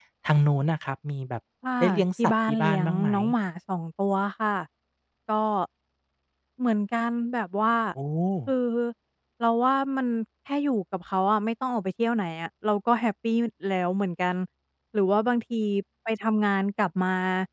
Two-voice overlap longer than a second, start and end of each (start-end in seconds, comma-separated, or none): 1.8-3.1